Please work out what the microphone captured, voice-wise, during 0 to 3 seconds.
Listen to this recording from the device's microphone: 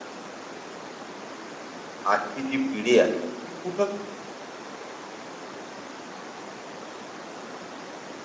user only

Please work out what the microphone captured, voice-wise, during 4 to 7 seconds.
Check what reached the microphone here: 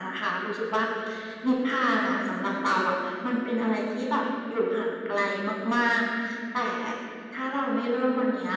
echo only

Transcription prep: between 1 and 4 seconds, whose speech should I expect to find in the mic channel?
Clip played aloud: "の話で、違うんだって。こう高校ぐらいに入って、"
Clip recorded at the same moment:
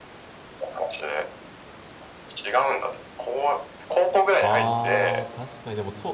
echo only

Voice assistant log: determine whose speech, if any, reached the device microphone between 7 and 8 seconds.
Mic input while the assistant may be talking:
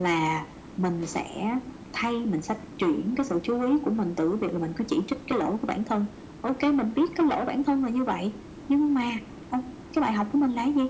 echo only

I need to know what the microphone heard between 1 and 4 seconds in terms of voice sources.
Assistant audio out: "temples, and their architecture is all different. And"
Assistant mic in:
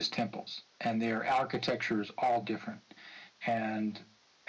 echo only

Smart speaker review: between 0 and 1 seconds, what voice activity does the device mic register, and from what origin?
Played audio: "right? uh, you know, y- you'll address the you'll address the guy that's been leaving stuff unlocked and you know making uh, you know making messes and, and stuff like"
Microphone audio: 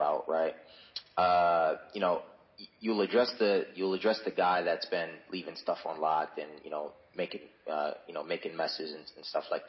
echo only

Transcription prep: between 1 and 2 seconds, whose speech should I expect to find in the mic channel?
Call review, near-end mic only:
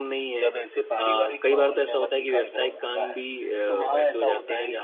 both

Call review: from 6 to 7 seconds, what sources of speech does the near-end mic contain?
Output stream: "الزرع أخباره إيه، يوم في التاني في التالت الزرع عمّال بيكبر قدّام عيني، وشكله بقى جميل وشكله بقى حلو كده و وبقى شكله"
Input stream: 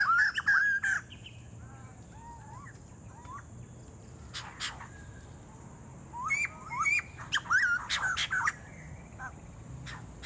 neither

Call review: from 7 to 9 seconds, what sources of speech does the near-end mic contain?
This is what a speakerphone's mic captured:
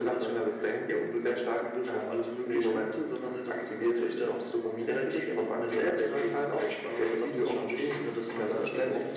echo only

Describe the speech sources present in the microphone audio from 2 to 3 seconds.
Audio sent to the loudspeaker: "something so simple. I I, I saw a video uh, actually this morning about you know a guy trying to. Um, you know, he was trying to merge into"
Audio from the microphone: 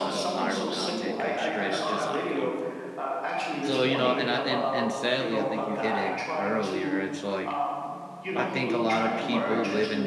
both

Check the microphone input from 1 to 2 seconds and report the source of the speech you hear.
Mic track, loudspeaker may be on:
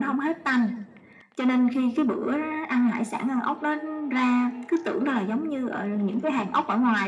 echo only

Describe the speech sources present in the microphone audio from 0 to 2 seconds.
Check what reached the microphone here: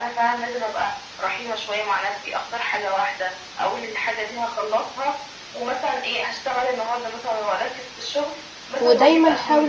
echo only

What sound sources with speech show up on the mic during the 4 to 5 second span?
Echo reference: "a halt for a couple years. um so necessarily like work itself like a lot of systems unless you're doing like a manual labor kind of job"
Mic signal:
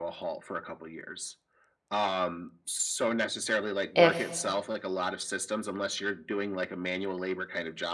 both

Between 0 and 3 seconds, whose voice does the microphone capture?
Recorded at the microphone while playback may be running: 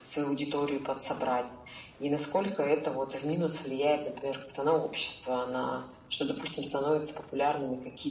echo only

